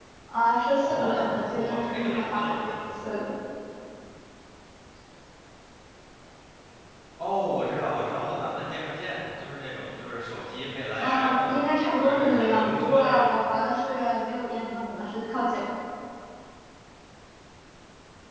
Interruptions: present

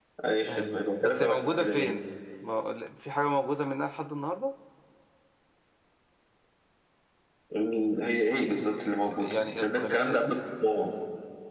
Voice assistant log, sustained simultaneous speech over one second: present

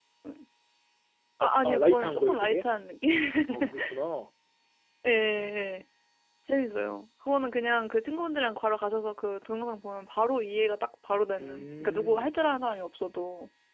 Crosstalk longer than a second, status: present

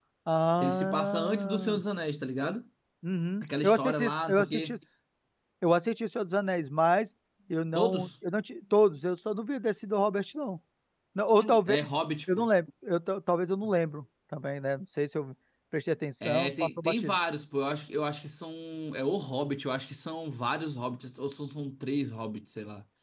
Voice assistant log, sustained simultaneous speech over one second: present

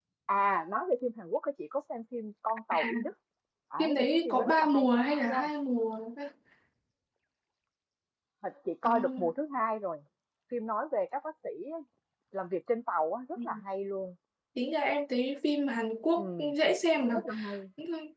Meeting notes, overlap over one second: present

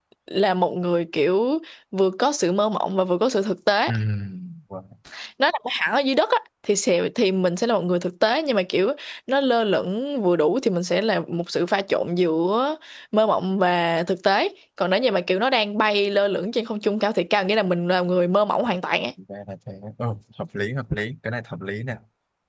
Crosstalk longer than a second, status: none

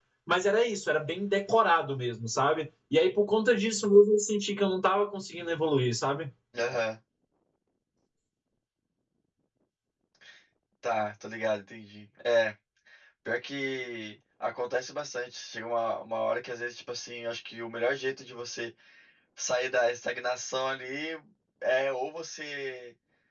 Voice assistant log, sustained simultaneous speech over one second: none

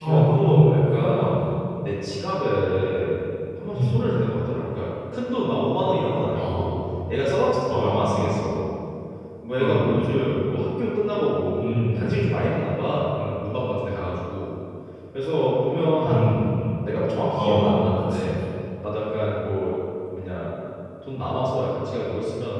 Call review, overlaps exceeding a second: present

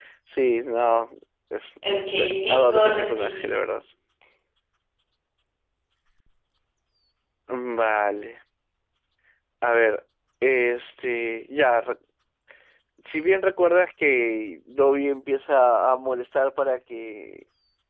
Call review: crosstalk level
present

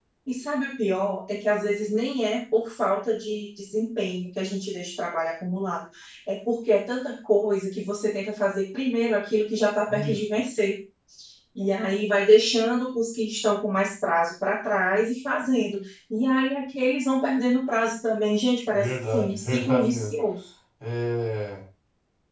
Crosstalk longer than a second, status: present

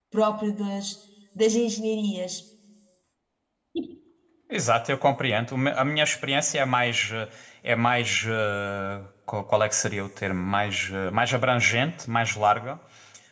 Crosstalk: none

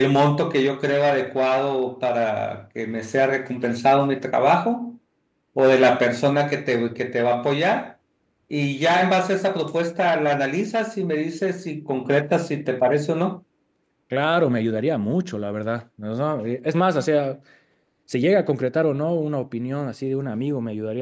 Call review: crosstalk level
none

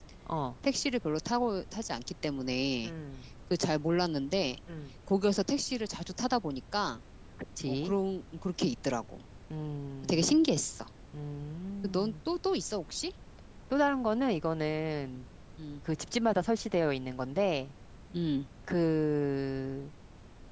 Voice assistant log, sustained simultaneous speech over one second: none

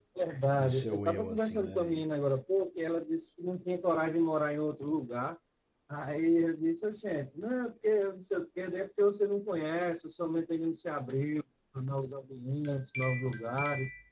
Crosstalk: present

